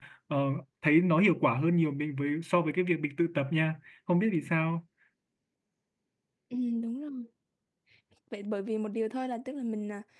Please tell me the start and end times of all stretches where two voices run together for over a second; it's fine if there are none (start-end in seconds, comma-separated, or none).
none